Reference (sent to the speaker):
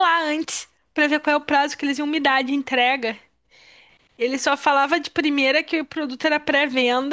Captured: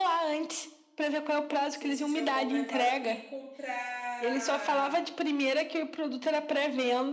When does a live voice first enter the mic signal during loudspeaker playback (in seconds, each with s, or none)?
1.7 s